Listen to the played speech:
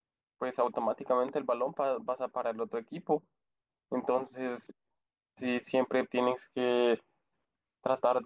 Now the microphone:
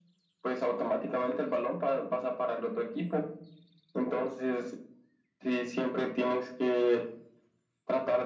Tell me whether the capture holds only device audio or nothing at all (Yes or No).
Yes